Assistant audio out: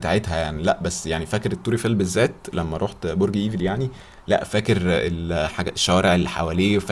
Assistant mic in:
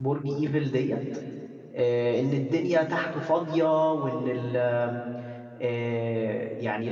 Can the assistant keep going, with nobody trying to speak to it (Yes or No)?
No